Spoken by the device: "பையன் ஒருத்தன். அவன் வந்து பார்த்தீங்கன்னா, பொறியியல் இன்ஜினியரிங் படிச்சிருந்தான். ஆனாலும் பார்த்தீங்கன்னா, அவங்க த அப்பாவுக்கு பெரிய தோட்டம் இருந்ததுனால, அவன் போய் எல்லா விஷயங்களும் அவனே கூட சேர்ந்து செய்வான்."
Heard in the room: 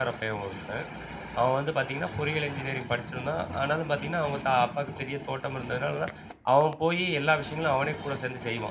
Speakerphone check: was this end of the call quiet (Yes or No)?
Yes